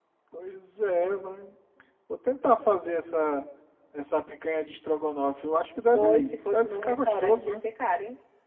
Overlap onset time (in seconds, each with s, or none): 5.9 s